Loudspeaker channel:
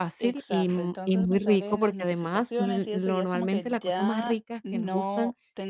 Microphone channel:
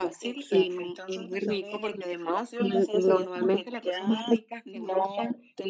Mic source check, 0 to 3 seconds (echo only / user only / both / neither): echo only